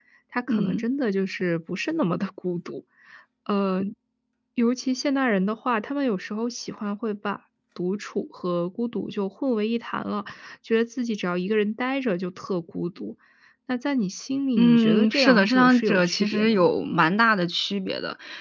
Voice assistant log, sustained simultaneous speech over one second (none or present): present